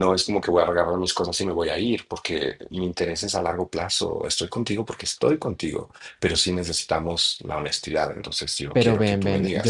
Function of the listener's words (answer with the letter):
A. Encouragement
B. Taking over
B